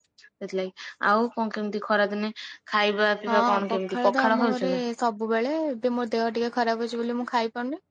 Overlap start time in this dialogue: 3.3 s

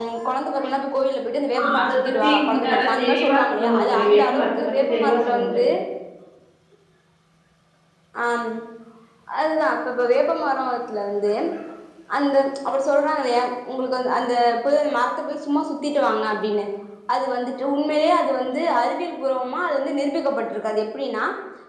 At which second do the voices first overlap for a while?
1.5 s

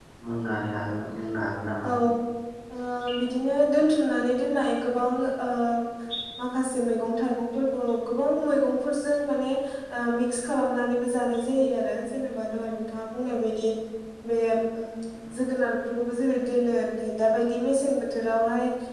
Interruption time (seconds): none

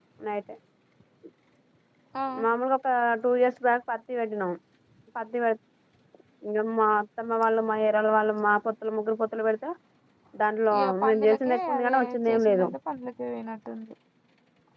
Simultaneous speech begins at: 10.8 s

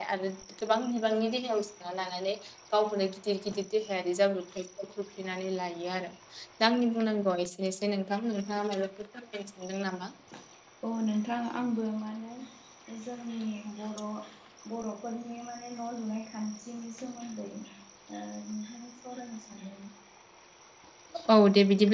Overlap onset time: none

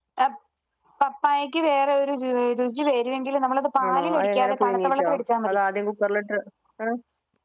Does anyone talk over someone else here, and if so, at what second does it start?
3.8 s

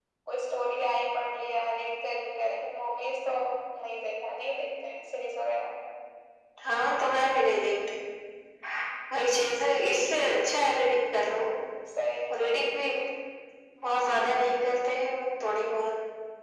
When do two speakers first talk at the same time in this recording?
none

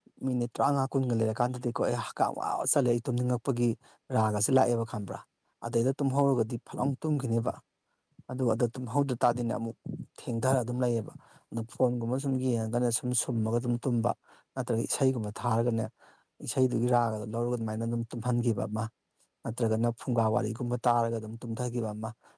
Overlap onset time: none

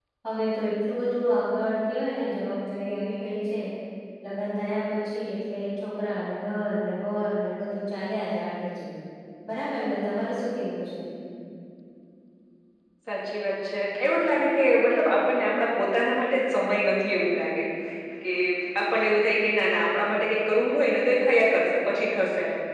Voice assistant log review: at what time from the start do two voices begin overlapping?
none

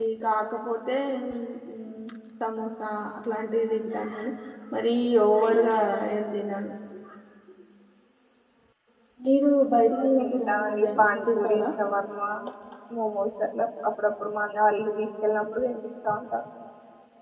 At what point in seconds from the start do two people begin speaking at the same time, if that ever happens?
10.0 s

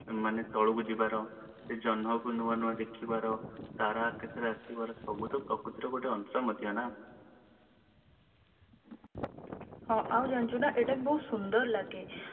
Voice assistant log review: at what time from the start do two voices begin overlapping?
none

